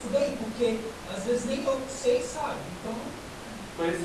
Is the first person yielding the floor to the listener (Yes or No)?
Yes